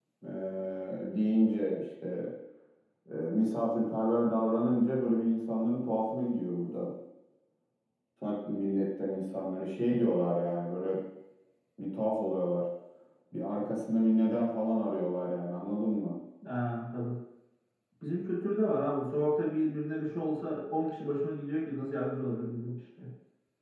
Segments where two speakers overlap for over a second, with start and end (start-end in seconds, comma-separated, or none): none